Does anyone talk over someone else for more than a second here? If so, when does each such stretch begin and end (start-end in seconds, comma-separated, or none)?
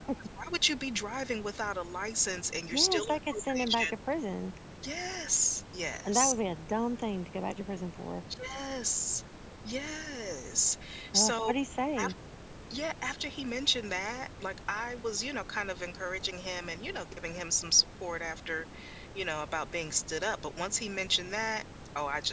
2.7-3.9